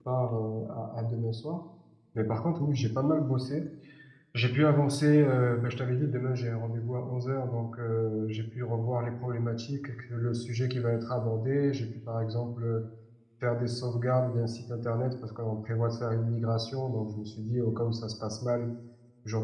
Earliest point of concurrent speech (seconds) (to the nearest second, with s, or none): none